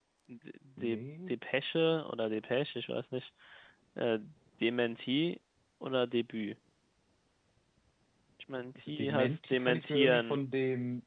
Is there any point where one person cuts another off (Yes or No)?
Yes